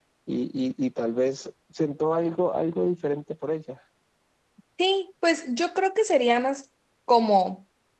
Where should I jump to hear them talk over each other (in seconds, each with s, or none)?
none